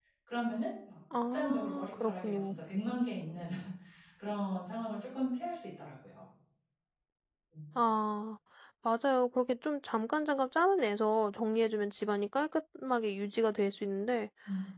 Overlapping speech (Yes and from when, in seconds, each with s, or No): Yes, from 1.1 s